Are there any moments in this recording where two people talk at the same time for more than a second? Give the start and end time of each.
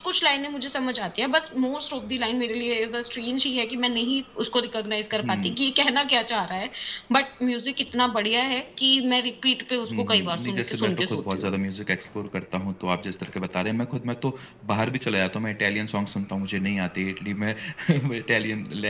9.9-11.5

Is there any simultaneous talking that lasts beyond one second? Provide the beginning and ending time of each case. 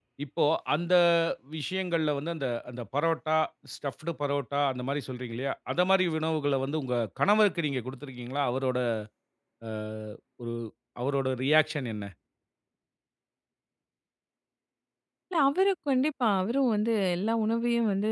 none

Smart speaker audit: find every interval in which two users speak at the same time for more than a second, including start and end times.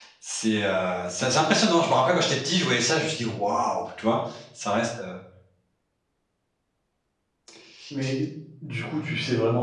none

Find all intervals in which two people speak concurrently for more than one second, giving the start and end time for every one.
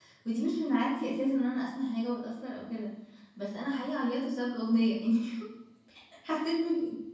none

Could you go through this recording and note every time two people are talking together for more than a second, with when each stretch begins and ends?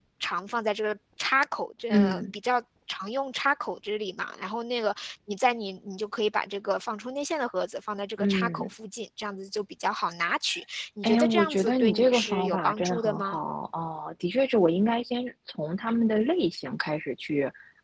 11.0-13.4

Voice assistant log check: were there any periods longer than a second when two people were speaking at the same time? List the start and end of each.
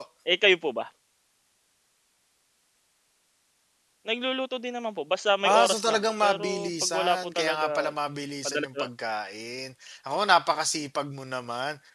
5.5-7.9

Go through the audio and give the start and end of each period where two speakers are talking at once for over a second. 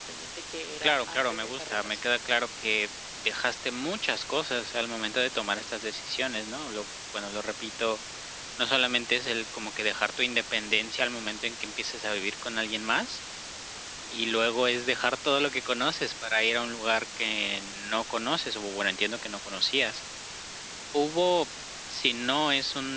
0.8-2.0

